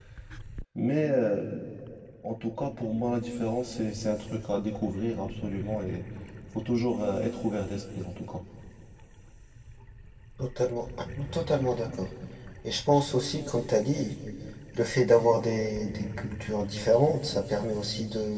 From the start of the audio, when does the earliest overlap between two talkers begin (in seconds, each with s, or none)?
none